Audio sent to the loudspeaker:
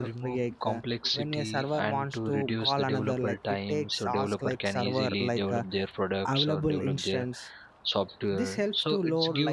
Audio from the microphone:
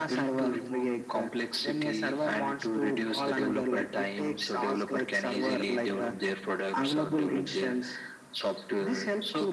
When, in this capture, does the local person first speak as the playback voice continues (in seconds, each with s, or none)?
none